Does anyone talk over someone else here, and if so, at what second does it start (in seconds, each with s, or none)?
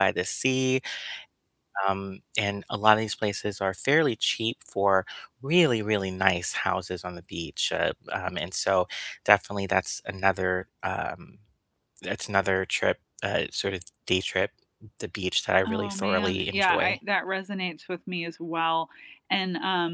15.7 s